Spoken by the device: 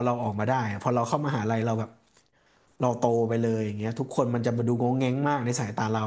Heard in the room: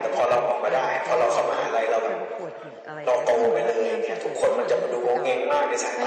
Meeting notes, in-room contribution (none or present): present